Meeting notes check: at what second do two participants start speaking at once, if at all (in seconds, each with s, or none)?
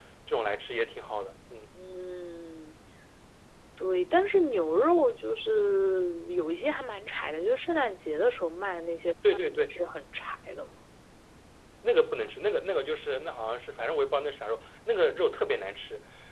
none